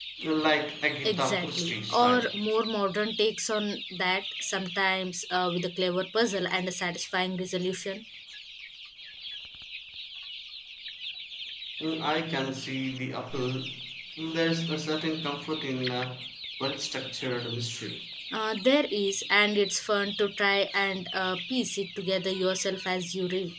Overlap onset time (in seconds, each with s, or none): 1.0 s